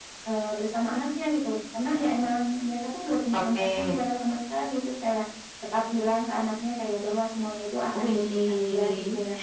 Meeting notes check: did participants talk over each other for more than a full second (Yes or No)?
Yes